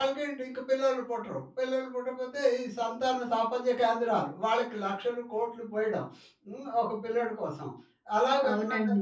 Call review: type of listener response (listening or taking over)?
listening